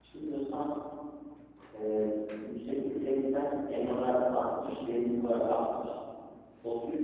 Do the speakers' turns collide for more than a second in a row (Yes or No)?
No